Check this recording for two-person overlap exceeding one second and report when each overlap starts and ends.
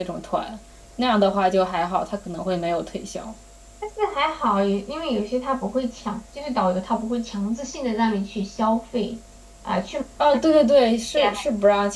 none

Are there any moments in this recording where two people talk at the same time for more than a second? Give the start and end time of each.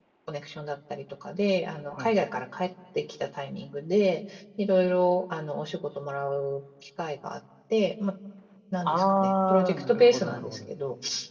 8.8-10.6

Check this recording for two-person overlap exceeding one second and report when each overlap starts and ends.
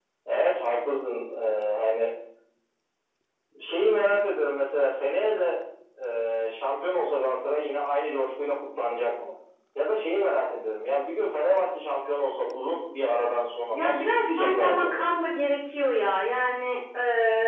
13.7-15.0

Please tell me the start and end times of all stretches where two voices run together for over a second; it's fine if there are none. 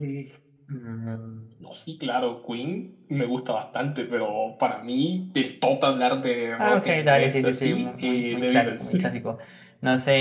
6.6-8.9

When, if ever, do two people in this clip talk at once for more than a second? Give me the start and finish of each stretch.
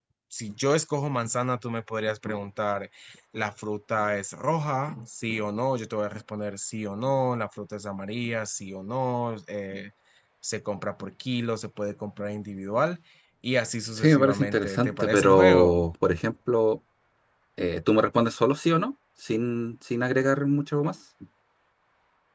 14.0-15.8

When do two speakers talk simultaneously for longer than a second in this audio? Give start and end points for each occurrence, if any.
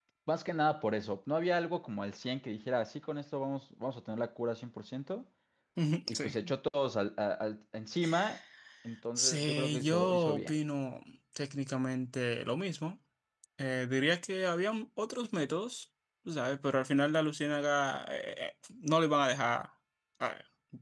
9.2-10.5

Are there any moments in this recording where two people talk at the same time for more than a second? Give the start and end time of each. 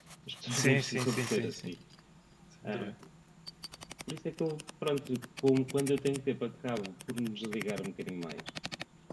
0.5-1.7

